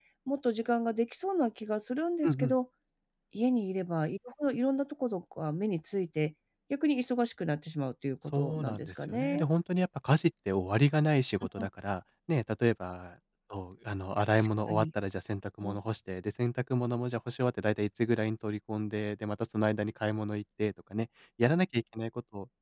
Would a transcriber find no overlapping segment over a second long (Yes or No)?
No